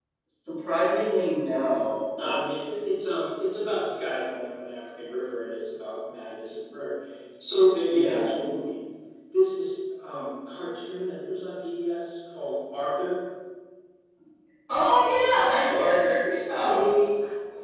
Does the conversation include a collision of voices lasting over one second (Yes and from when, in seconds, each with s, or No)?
No